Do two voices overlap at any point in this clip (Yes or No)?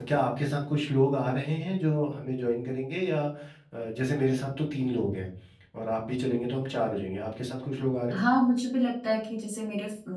No